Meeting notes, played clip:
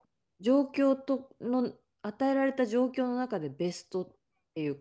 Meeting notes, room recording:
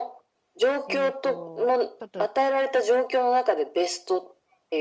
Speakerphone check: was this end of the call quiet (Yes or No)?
No